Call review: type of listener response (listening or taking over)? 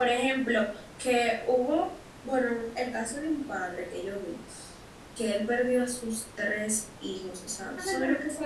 taking over